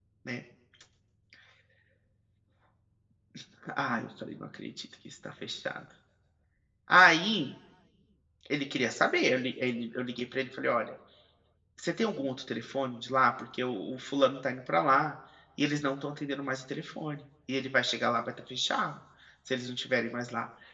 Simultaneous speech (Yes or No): No